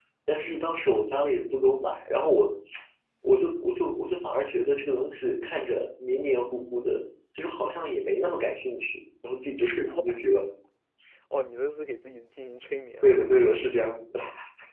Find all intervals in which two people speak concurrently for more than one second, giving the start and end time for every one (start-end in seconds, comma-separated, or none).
none